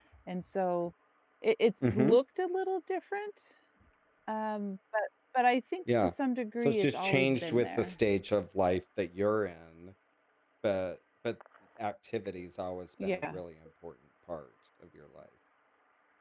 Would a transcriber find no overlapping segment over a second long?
No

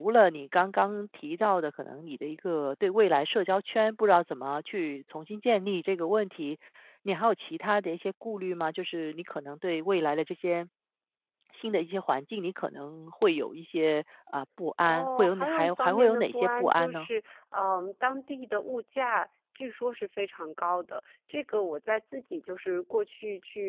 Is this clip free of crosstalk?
No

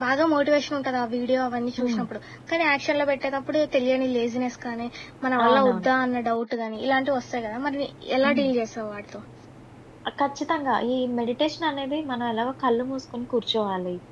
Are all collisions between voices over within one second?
Yes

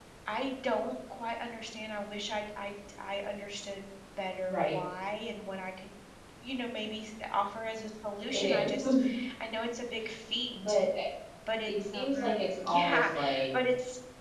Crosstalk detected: Yes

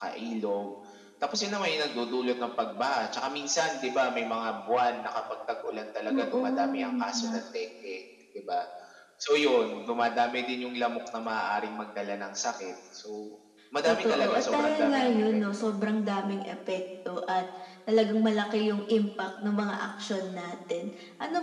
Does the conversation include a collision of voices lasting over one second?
Yes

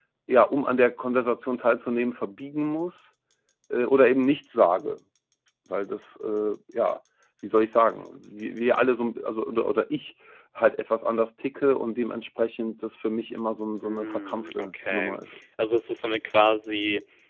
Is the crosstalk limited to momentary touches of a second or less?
No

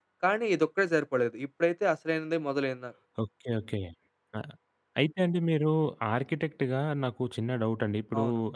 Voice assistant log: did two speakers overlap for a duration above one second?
No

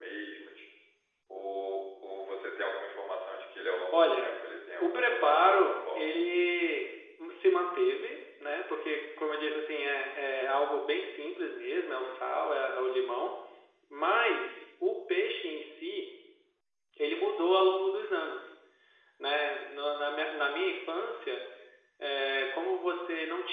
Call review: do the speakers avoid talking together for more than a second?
No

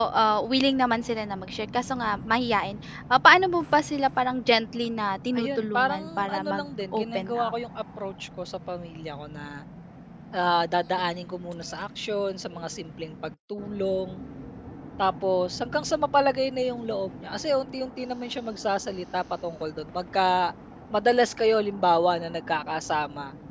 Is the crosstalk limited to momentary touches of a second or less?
No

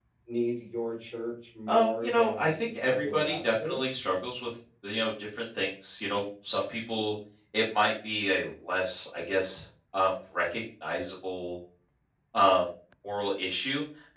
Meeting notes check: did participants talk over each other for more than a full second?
Yes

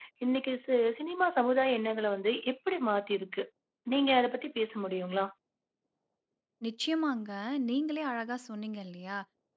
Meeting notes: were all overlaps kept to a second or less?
Yes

